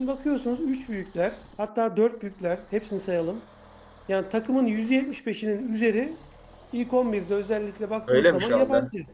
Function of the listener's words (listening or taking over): taking over